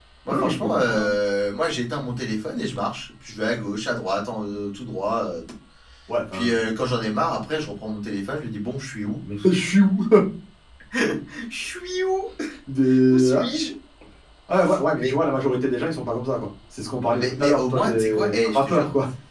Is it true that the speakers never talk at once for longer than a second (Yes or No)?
No